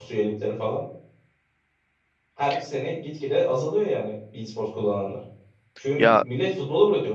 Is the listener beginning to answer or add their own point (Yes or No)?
No